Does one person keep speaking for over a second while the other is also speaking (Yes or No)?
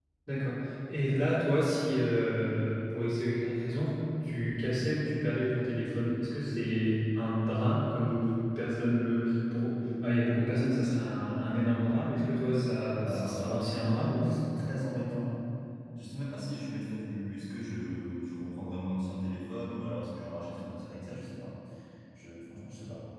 Yes